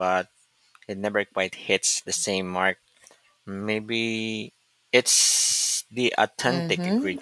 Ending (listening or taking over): taking over